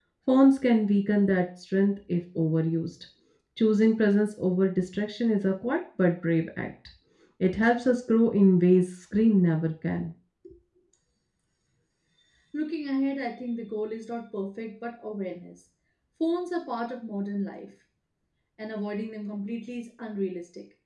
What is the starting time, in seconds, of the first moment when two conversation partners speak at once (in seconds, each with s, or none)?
none